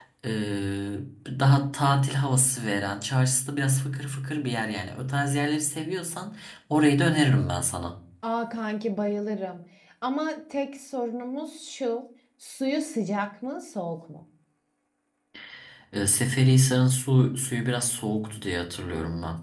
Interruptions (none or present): none